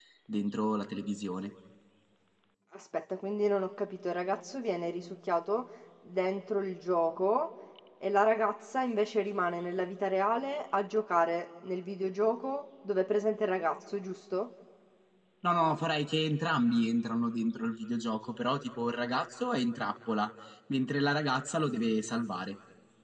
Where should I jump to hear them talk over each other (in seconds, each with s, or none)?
none